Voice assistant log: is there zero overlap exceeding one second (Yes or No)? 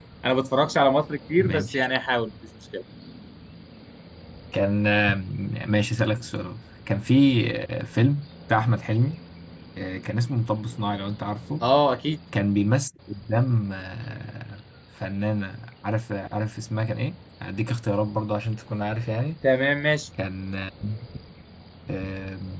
Yes